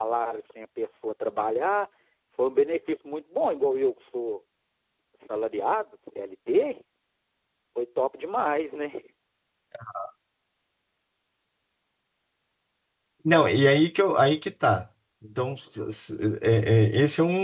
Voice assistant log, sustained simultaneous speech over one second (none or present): none